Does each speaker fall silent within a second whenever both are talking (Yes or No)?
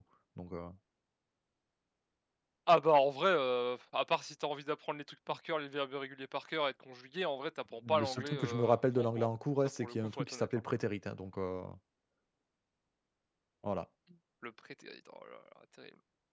No